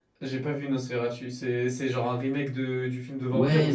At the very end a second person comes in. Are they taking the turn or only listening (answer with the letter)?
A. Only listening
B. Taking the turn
B